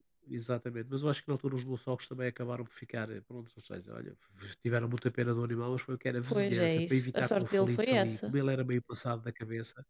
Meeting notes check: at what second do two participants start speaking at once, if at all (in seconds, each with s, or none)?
6.2 s